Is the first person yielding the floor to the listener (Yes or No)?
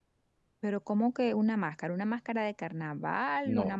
Yes